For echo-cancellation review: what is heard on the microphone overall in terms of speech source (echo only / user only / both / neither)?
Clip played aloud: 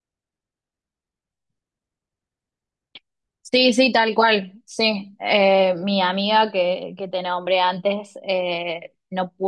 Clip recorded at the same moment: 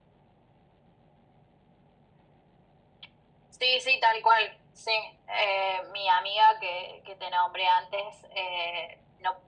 echo only